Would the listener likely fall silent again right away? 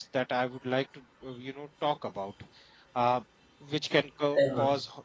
Yes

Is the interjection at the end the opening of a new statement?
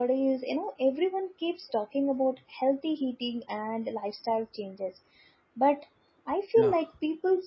No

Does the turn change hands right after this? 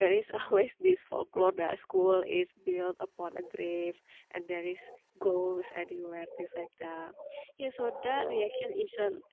No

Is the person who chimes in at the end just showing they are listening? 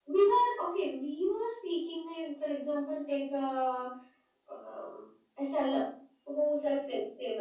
Yes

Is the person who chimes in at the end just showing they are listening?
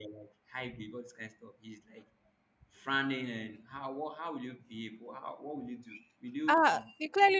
No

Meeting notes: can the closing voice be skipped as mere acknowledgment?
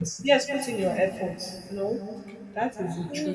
No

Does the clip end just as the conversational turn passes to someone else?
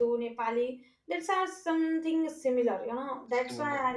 No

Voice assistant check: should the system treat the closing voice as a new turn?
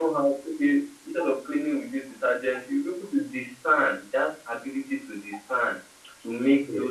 No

